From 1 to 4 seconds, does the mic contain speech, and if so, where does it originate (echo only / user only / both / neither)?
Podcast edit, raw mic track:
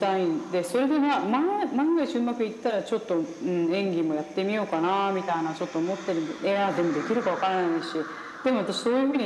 echo only